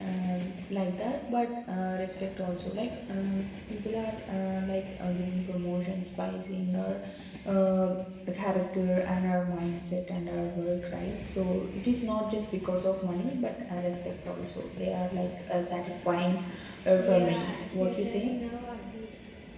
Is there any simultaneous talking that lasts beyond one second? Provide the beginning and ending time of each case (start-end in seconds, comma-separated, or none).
17.0-18.3